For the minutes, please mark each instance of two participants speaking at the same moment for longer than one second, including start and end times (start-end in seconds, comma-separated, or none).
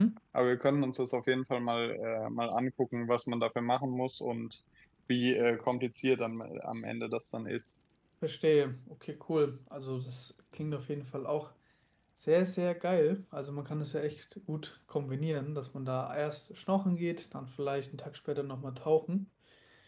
none